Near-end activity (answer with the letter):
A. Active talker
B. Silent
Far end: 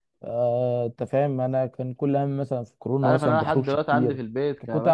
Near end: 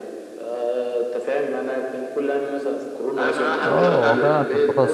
A